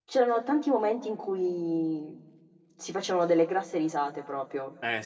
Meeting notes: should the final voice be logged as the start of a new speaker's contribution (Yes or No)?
Yes